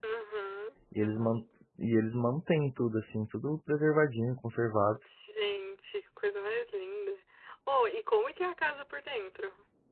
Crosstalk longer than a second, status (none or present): none